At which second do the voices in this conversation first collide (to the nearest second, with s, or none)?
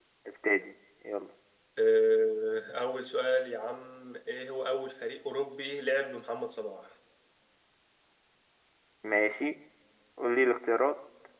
none